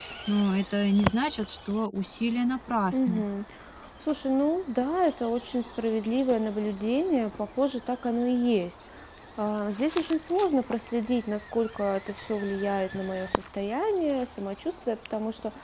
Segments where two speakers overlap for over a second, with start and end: none

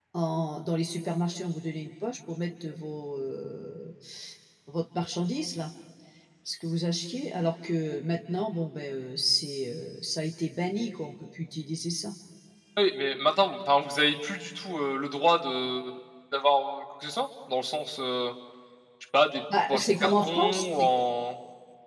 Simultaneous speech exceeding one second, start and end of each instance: 19.7-20.9

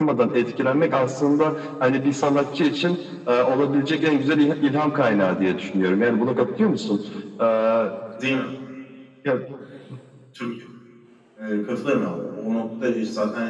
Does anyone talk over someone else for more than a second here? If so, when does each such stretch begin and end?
none

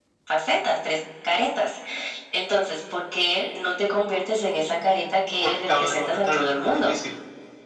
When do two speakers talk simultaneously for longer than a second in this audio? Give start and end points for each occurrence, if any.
5.4-6.9

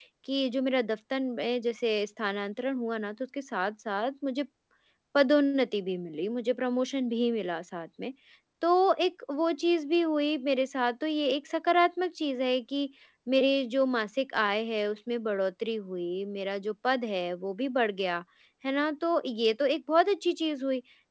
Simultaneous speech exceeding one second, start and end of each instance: none

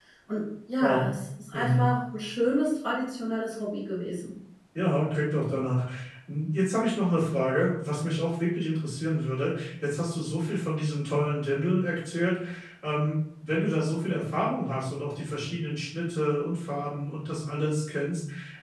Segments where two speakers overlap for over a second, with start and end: none

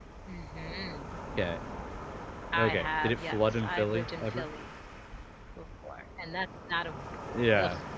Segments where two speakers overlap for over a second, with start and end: 2.6-4.5

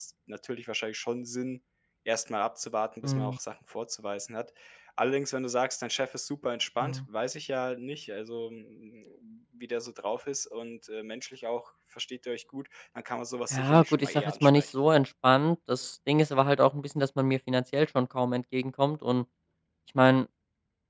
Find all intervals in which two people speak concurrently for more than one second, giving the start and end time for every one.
13.5-14.7

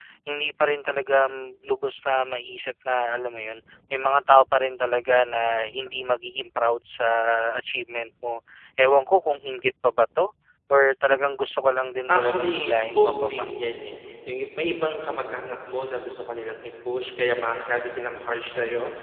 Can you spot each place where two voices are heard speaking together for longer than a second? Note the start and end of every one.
12.1-13.5

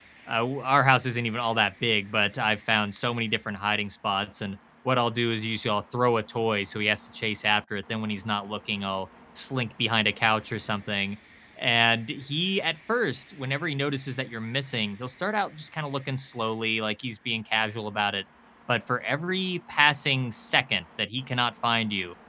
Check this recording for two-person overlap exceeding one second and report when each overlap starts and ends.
none

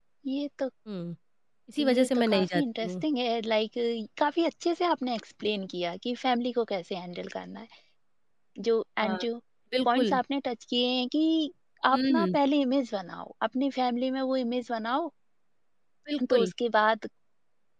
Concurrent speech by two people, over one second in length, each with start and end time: 1.8-3.0

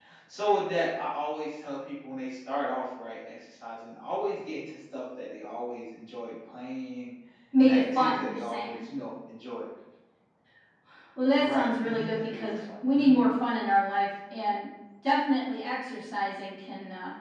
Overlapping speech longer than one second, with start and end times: 7.6-8.8, 11.3-13.1

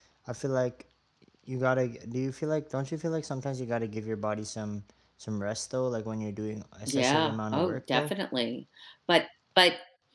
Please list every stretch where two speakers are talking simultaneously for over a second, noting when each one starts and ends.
6.9-8.1

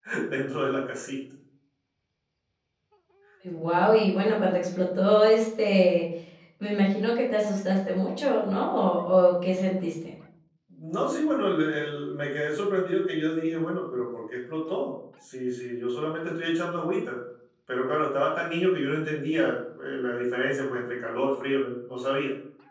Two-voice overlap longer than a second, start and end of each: none

